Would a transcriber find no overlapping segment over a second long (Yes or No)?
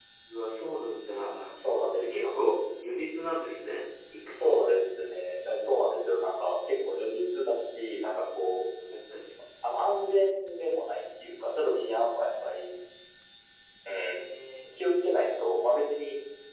Yes